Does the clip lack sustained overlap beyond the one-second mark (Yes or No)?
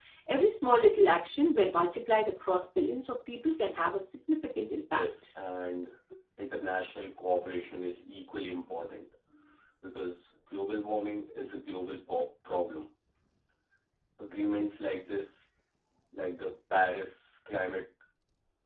Yes